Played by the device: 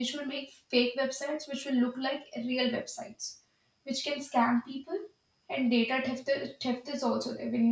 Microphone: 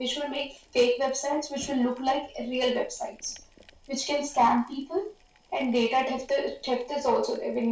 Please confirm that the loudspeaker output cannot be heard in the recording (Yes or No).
No